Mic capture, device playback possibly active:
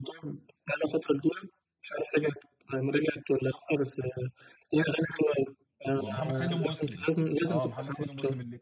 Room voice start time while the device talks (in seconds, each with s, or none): 6.0 s